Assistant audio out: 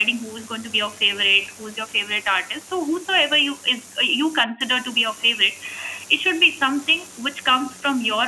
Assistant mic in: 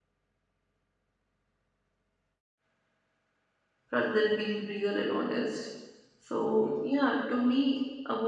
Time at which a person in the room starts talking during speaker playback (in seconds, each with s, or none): 3.9 s